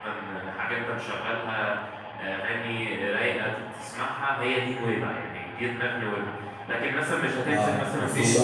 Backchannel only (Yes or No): No